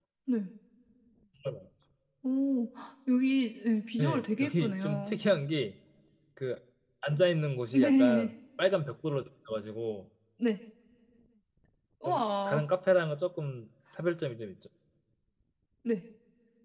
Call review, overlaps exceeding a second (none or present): present